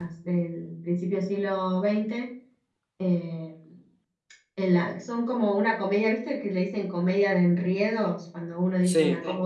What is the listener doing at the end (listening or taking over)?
listening